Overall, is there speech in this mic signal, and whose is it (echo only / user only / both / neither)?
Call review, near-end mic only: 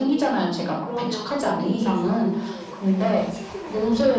both